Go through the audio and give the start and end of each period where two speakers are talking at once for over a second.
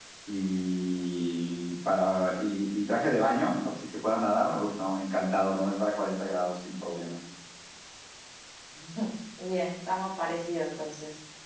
none

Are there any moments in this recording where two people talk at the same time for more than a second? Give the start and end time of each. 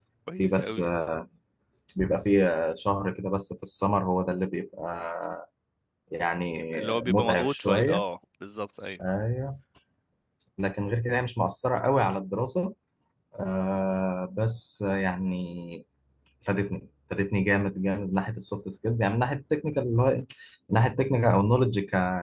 6.7-8.0

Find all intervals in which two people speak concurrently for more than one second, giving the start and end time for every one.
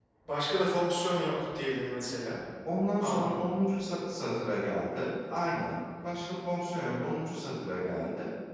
none

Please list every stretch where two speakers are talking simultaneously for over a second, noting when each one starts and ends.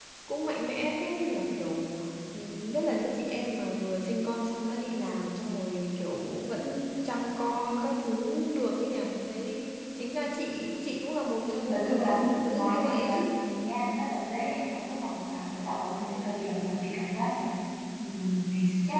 11.7-13.3

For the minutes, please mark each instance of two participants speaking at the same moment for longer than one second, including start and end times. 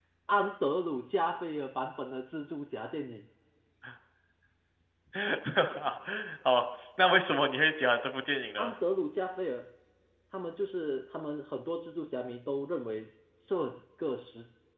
none

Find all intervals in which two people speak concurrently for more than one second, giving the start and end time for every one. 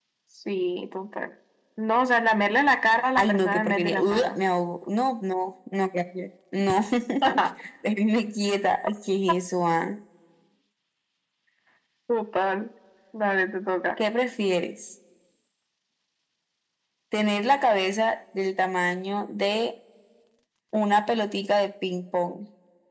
3.2-4.4

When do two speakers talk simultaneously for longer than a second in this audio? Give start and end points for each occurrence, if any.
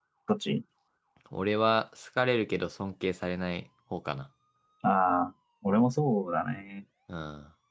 none

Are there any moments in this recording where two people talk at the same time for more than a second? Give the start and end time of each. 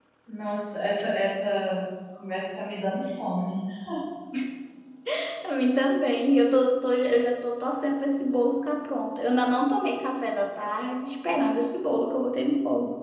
none

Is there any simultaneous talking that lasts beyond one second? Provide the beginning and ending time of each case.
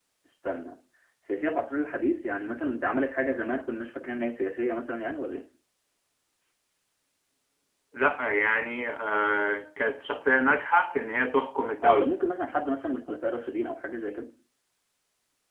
none

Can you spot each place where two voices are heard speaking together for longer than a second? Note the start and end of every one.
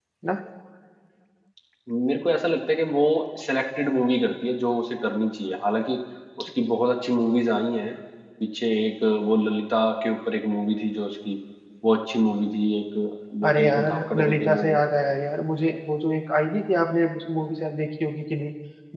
13.5-14.8

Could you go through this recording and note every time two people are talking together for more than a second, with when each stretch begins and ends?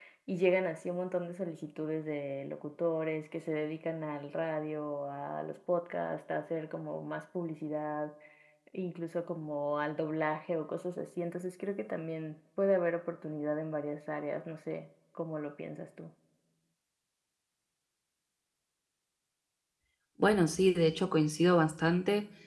none

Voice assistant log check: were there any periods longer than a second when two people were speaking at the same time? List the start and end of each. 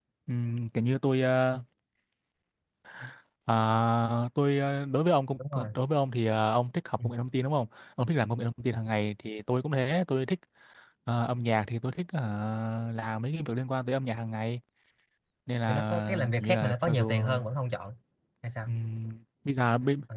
15.7-17.2

